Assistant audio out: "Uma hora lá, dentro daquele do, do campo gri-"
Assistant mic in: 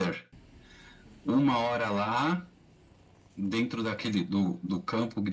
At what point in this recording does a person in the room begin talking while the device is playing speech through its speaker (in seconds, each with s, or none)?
none